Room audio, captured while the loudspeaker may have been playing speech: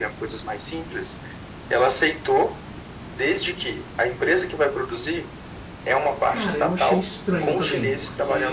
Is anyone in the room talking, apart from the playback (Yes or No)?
Yes